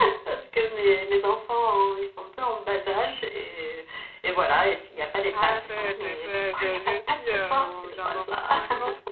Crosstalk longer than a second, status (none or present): present